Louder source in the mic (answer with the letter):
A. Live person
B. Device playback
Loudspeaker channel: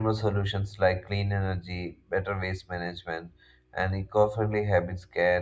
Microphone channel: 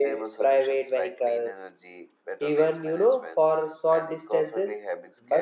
A